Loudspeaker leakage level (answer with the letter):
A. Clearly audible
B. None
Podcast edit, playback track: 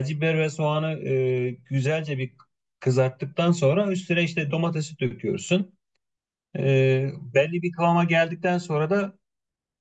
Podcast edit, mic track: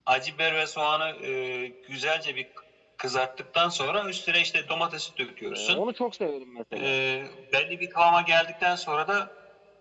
A